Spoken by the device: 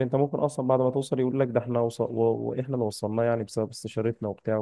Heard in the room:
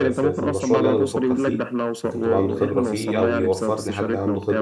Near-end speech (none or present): present